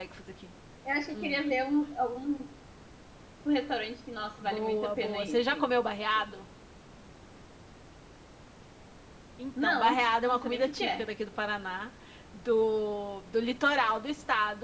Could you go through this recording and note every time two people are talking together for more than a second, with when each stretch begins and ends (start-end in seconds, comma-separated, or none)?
4.4-5.7, 9.6-11.1